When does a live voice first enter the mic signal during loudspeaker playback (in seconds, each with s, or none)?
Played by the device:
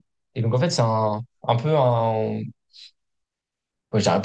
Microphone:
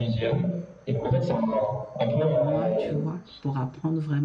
2.2 s